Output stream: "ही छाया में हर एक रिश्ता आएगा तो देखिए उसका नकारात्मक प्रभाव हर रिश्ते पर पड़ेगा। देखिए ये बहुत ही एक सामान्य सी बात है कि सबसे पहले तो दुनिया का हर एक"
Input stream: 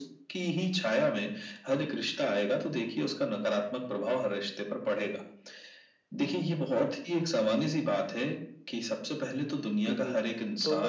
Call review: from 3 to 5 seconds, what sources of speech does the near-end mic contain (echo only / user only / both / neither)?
echo only